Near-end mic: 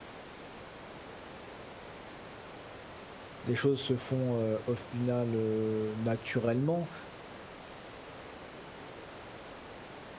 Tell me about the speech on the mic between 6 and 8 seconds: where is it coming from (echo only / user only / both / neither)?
user only